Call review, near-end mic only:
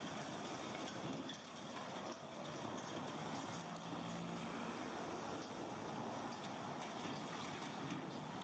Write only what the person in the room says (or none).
none